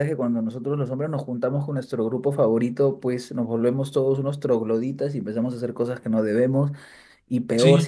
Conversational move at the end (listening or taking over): listening